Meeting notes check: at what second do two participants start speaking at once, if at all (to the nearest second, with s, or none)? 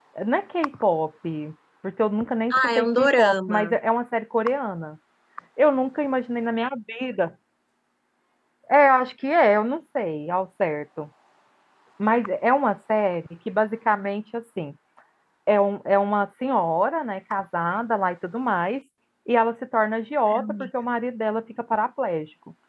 3 s